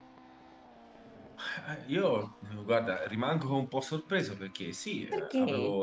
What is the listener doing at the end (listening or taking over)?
listening